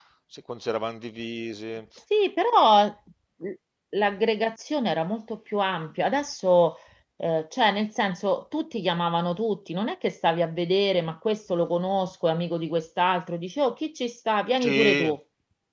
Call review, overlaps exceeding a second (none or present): none